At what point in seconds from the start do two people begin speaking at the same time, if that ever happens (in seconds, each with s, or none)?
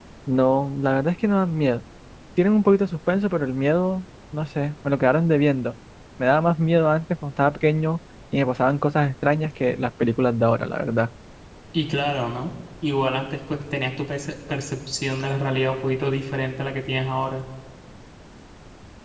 none